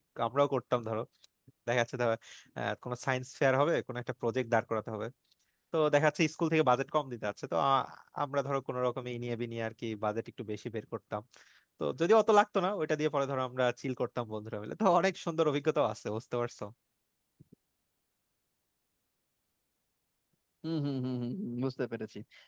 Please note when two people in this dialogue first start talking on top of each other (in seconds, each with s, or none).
none